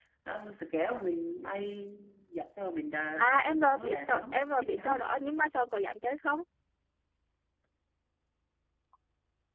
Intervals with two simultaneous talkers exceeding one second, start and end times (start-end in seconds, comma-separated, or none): 3.2-4.9